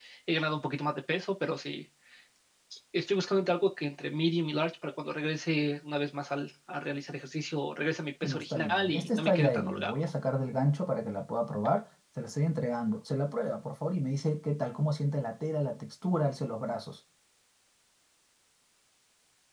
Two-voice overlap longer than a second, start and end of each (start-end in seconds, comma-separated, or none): 8.2-10.1